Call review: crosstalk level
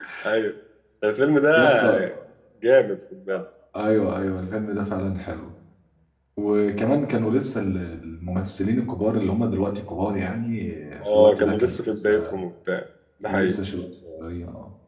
present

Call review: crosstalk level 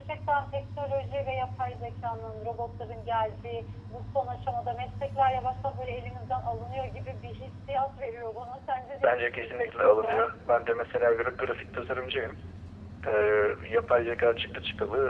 present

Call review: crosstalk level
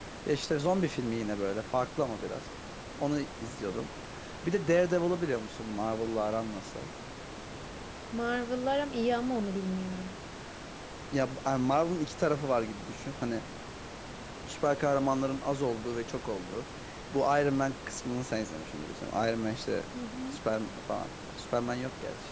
none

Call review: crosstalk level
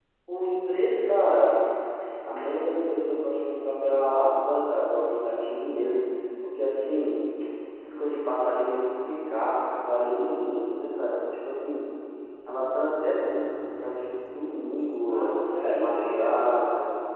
present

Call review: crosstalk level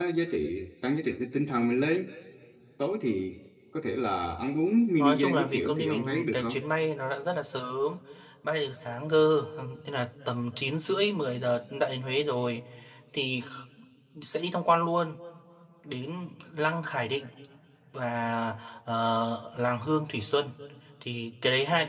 present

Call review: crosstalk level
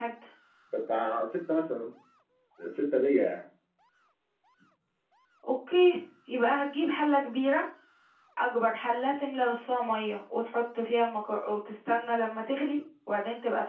none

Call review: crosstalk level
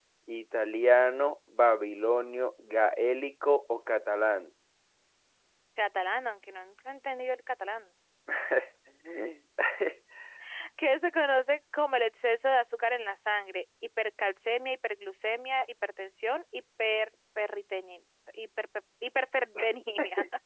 none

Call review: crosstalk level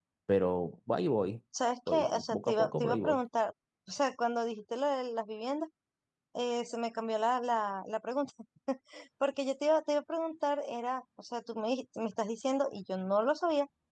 present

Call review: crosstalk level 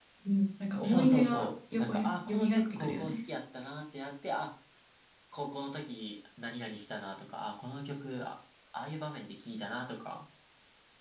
present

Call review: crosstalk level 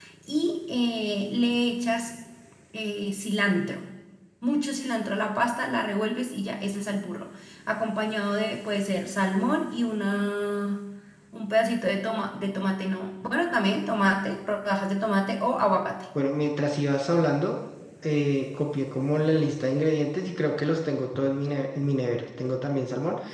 none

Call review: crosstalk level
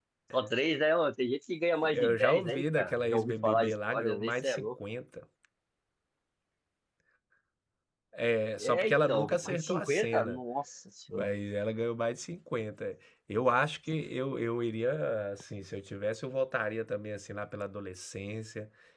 present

